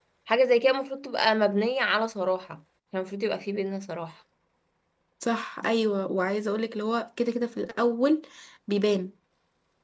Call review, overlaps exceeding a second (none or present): none